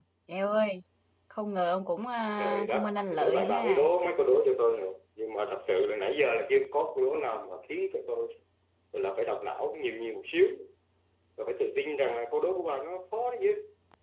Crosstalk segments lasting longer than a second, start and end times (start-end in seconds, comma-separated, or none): 2.4-3.9